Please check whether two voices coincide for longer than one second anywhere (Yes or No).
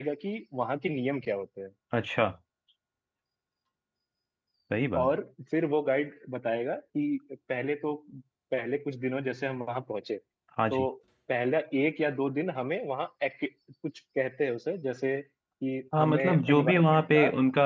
Yes